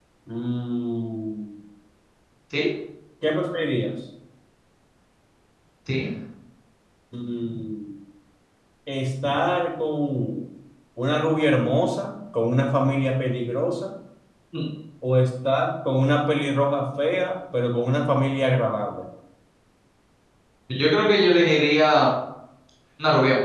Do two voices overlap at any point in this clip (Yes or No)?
No